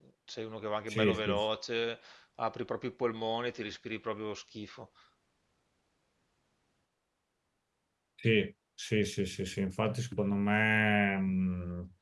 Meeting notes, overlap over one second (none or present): none